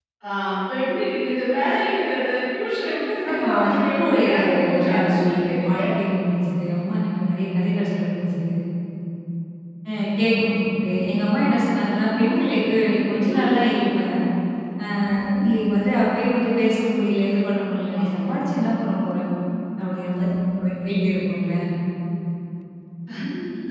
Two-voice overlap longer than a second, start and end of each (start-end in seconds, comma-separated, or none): 3.3-5.8